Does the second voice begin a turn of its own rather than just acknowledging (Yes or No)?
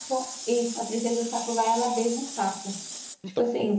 Yes